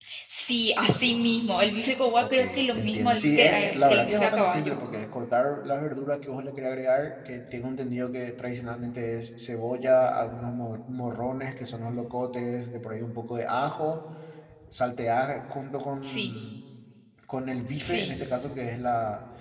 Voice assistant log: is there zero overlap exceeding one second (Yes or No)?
No